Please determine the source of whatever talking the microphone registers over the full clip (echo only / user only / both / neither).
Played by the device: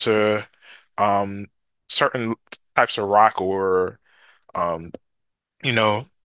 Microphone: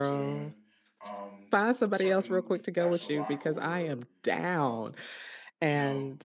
both